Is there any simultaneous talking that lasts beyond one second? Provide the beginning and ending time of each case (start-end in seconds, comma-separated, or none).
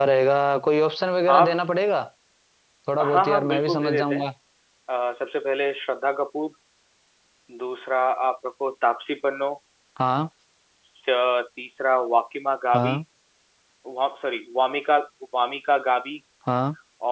3.0-4.3